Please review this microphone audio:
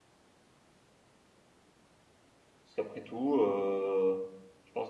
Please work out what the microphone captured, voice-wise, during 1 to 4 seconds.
user only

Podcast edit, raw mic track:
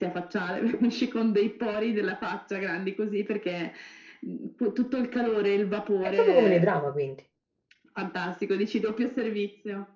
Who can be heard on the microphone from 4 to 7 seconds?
both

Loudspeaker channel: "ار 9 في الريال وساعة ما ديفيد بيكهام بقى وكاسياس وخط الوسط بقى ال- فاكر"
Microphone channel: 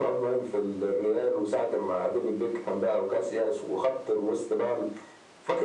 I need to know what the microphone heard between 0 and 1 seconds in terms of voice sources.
echo only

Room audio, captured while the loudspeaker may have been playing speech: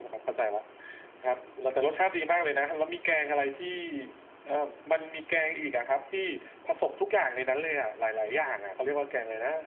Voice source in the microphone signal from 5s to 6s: echo only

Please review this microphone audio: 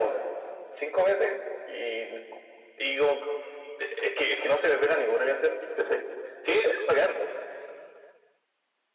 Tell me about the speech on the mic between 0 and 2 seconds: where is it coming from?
echo only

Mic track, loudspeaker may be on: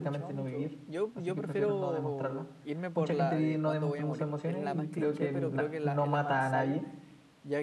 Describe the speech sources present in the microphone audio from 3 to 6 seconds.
both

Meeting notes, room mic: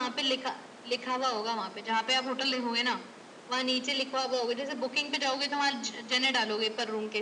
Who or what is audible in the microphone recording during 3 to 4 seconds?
echo only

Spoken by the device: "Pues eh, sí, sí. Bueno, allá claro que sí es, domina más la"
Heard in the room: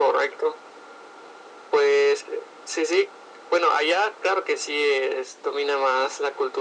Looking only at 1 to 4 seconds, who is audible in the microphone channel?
echo only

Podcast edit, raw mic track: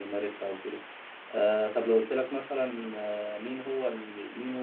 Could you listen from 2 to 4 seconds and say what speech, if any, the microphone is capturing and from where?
user only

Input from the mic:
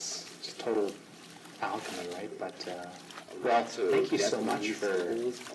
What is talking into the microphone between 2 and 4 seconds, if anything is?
echo only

